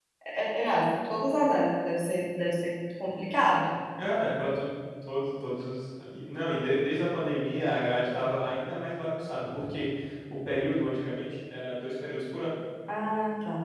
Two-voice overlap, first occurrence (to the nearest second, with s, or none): none